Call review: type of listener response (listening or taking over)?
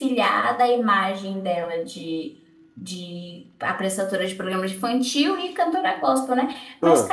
listening